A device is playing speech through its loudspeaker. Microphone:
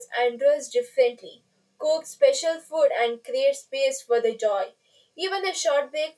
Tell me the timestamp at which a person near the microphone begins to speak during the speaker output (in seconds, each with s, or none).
none